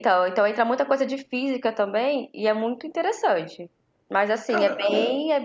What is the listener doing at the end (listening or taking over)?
listening